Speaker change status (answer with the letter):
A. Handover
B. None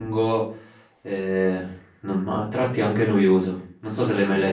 A